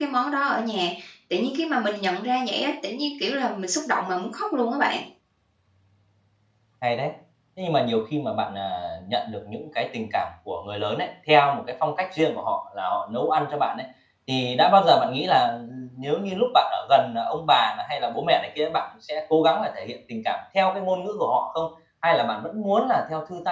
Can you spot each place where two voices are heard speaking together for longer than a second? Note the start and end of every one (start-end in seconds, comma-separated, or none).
none